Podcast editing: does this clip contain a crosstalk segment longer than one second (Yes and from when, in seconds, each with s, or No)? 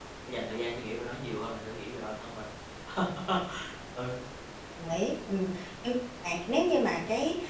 No